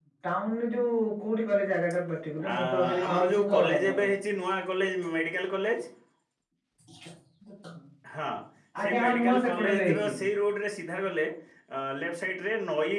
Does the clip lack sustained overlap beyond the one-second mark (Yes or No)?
No